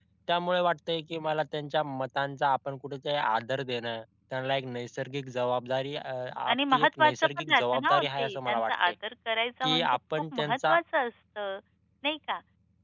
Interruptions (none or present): present